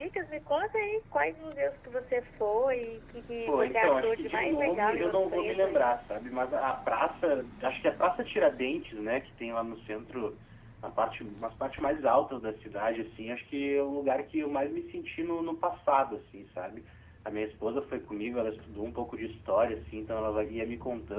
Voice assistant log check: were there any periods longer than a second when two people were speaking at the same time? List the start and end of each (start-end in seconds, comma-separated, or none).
3.5-6.0